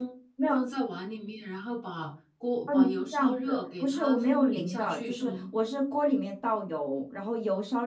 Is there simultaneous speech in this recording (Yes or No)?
Yes